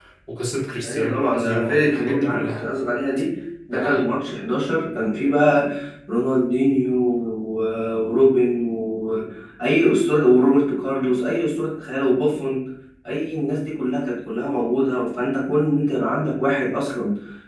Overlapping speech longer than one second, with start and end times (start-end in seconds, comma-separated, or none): 0.8-2.6